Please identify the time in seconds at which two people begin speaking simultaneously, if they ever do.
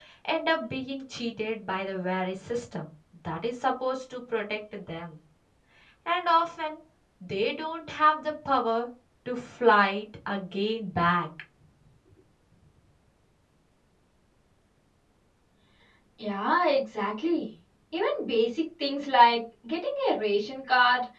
none

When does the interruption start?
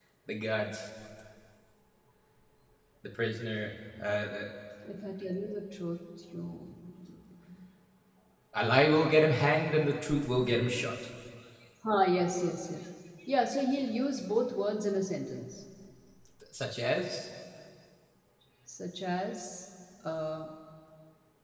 none

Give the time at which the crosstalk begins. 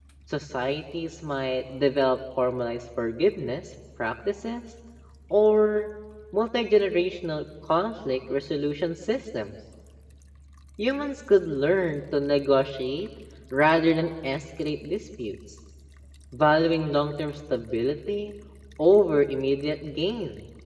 none

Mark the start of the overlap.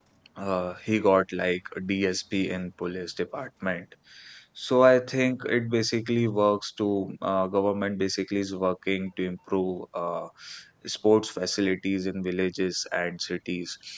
none

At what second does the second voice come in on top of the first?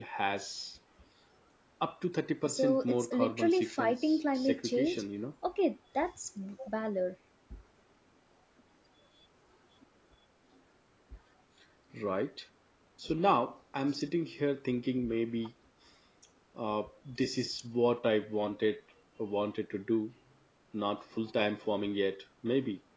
2.4 s

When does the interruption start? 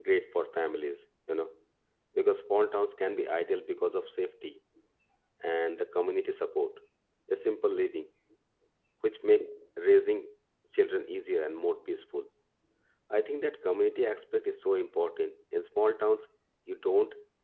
none

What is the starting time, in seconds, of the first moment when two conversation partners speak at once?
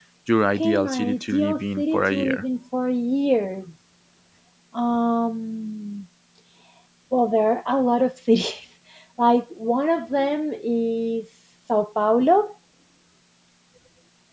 0.6 s

